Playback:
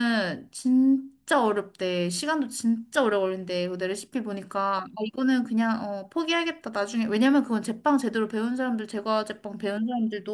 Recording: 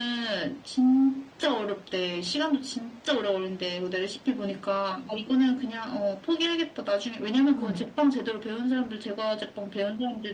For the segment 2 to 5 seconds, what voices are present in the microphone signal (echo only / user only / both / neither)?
echo only